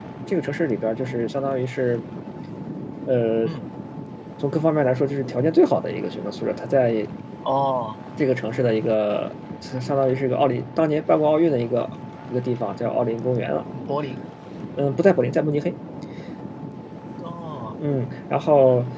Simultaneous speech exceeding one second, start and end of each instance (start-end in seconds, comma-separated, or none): none